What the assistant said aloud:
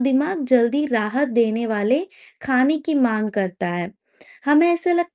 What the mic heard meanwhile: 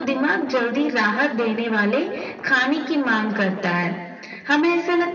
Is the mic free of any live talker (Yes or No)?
Yes